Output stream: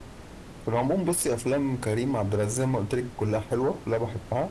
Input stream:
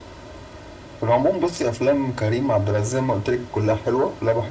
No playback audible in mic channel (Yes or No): No